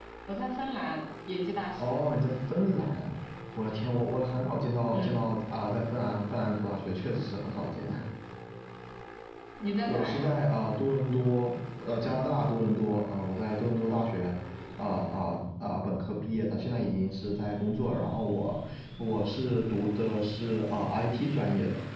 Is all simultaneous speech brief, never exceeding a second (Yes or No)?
Yes